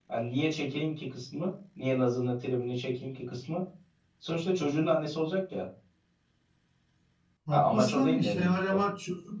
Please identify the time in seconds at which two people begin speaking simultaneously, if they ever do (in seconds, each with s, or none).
7.5 s